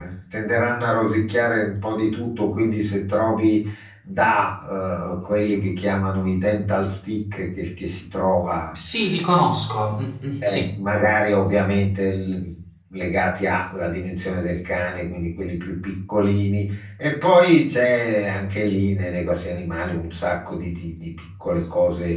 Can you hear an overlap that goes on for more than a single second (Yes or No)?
No